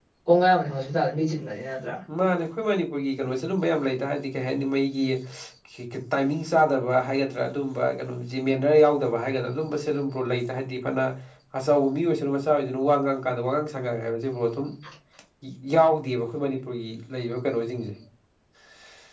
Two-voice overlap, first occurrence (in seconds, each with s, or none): none